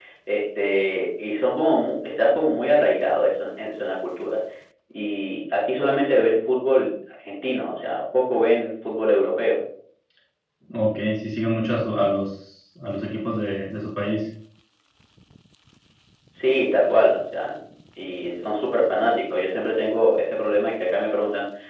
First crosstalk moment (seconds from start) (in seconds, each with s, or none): none